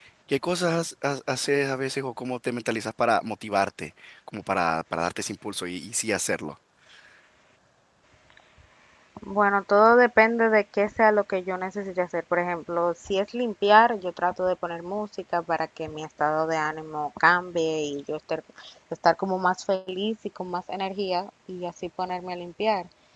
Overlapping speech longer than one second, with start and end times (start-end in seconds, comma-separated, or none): none